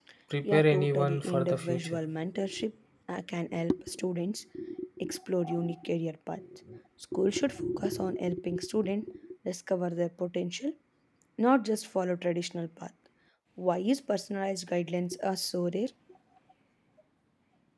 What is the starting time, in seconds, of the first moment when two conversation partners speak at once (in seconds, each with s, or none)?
0.5 s